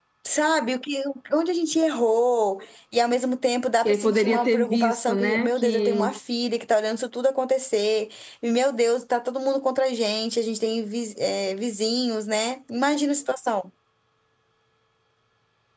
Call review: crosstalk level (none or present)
present